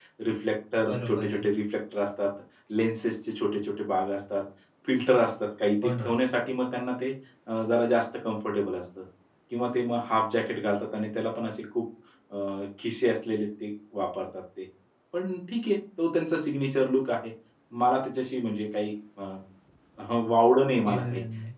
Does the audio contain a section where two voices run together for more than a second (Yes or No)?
No